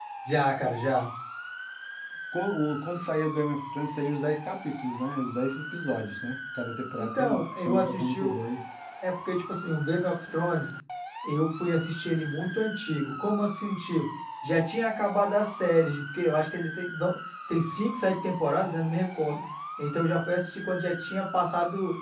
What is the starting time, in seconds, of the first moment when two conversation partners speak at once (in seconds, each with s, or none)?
7.0 s